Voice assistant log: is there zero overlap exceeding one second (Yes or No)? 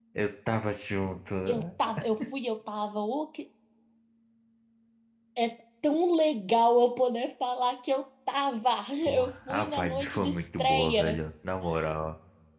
No